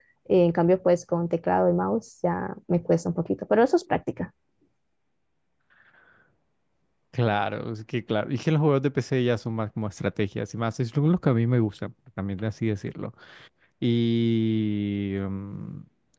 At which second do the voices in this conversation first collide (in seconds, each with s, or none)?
none